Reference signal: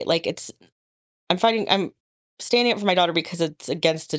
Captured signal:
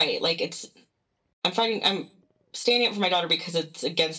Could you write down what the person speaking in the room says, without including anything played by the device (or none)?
none